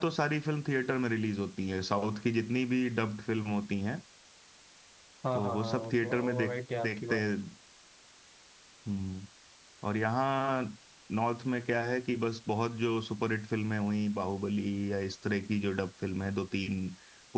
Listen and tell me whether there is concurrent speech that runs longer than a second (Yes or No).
Yes